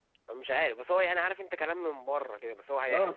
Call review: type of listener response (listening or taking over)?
taking over